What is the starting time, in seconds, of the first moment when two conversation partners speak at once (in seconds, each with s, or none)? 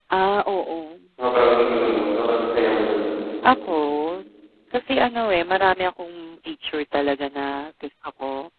none